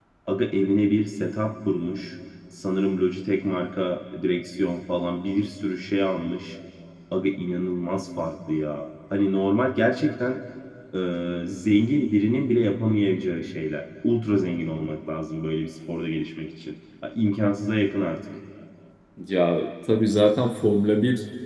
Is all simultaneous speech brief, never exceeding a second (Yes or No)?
Yes